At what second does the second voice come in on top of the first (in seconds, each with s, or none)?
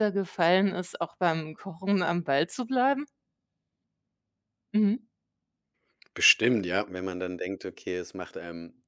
none